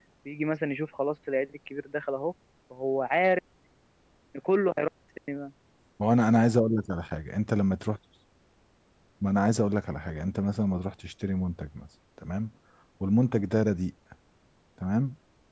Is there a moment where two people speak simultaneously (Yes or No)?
No